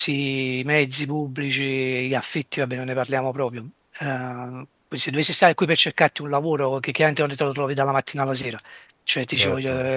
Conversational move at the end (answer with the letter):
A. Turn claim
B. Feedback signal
A